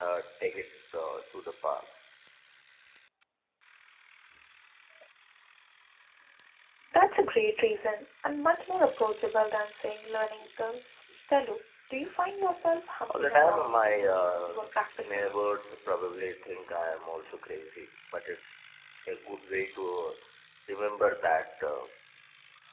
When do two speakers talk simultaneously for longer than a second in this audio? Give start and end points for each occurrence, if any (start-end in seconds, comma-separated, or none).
13.1-15.2